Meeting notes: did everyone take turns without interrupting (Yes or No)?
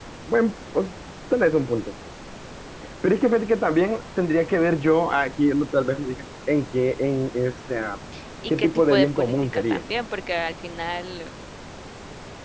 No